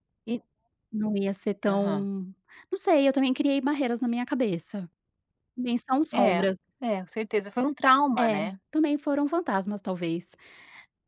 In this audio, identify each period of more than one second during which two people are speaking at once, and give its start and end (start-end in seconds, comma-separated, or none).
none